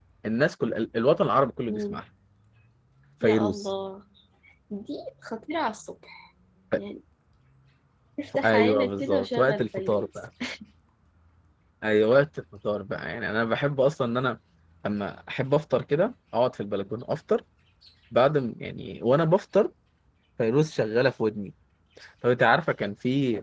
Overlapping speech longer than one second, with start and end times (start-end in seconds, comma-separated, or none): 8.3-10.1